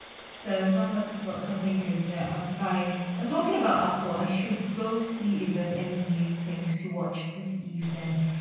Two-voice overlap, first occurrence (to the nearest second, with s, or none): none